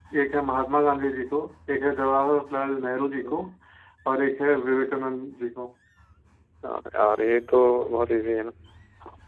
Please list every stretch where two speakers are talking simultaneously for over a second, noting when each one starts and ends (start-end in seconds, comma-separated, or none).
none